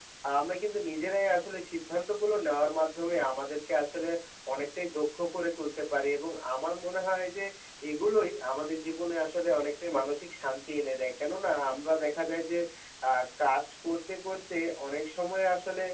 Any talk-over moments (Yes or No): No